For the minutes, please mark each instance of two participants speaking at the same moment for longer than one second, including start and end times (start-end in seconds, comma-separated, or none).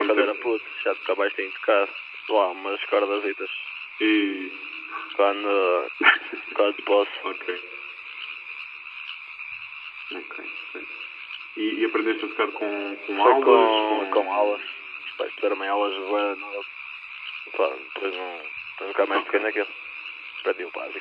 13.2-14.6